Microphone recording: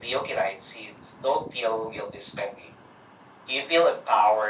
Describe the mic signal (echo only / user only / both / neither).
echo only